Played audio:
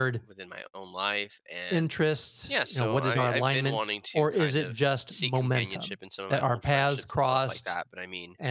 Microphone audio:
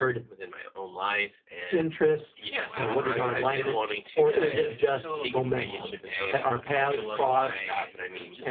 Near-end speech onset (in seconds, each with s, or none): 2.4 s